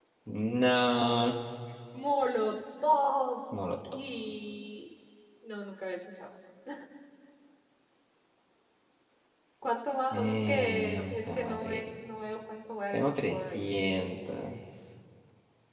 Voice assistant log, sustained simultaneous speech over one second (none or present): present